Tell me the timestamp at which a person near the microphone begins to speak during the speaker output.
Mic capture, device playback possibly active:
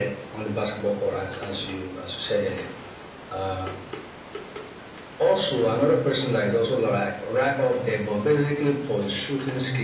none

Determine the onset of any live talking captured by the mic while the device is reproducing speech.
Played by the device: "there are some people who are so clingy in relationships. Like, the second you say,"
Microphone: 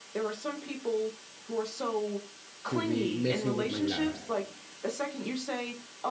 2.6 s

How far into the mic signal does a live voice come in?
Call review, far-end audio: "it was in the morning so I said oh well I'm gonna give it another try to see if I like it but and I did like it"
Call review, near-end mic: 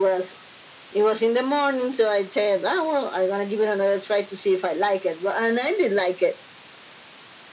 none

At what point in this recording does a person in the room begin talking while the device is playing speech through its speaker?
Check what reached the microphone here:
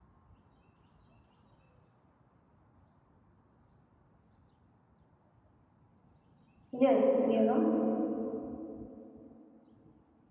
6.7 s

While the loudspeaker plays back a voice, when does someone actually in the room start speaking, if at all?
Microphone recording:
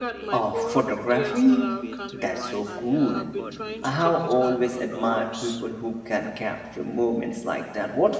0.3 s

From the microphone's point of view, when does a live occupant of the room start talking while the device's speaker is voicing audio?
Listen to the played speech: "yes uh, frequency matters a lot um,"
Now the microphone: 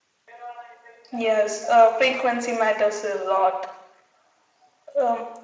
none

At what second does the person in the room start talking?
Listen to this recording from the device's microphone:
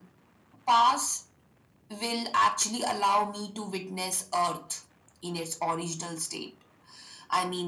none

